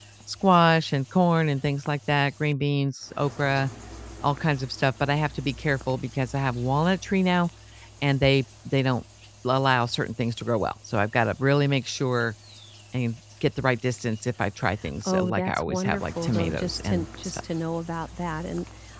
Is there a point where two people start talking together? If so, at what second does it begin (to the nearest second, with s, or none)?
15 s